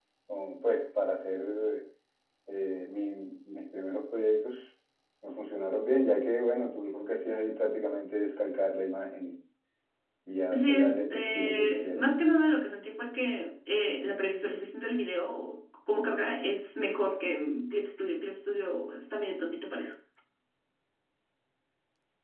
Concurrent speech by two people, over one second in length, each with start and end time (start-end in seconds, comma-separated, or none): 10.5-12.1